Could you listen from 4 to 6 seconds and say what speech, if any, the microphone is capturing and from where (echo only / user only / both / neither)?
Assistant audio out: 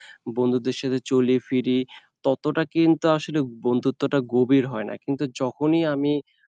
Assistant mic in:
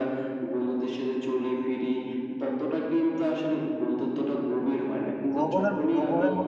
both